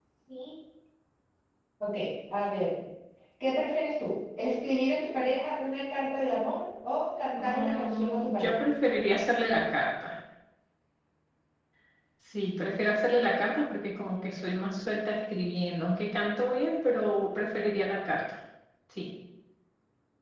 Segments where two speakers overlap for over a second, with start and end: 7.4-8.6

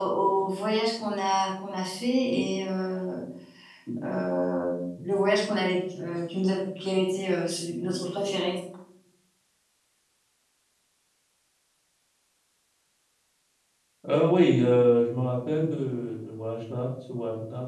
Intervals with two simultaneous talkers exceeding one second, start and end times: none

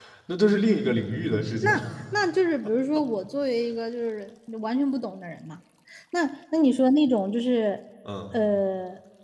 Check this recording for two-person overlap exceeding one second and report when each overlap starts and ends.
none

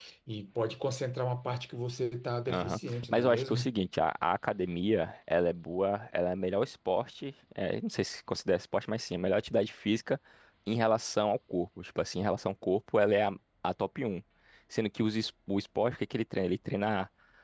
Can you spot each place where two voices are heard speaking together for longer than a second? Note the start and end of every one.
2.5-3.7

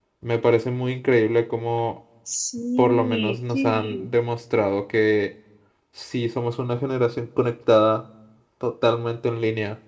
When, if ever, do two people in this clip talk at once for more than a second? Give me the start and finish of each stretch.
2.8-4.1

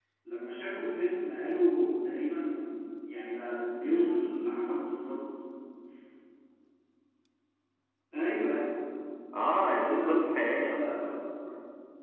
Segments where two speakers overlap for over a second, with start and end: 9.5-10.9

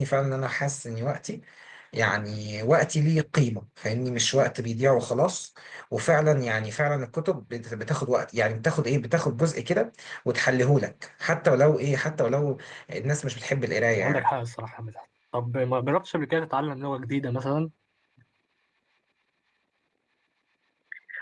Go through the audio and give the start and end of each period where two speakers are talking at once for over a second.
none

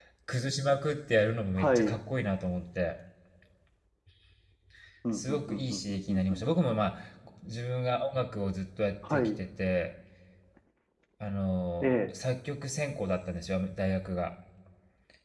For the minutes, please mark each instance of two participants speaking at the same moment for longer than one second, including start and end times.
5.1-6.4

